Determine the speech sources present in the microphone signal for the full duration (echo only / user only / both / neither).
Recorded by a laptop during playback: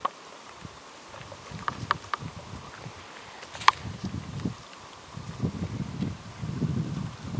neither